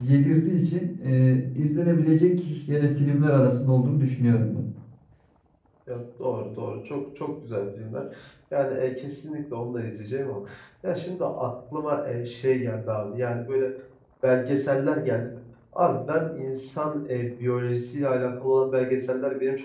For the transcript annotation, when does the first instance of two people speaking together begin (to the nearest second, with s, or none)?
none